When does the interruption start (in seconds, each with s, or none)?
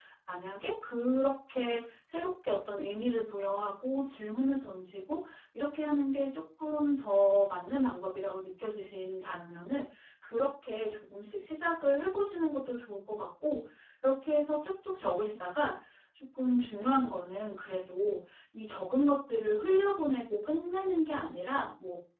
none